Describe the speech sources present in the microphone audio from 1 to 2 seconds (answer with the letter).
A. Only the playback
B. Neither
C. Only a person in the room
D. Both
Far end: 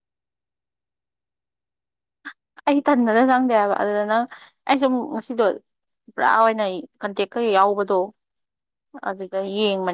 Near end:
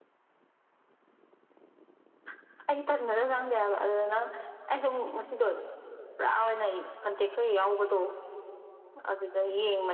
B